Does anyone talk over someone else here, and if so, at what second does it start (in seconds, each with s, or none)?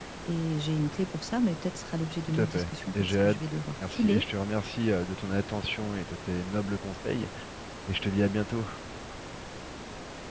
2.3 s